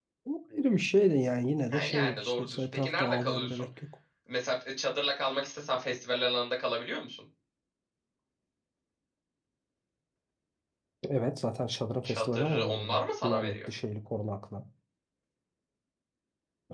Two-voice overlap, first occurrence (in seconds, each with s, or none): 1.7 s